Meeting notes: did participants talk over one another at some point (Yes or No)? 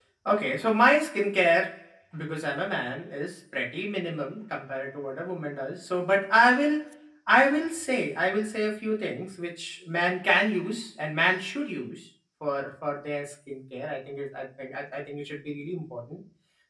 No